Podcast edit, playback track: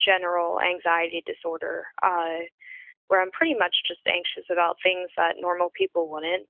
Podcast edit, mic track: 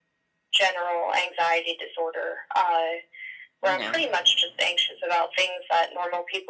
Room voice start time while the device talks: 3.6 s

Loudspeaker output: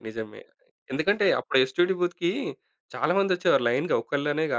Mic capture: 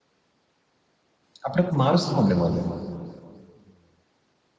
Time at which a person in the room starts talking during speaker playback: 1.5 s

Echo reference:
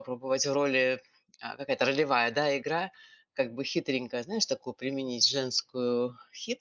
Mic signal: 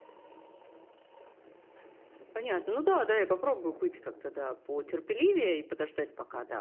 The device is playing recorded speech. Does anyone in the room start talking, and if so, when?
2.3 s

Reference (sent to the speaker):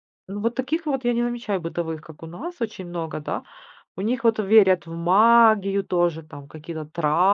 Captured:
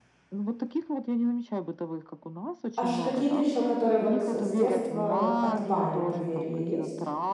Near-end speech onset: 2.7 s

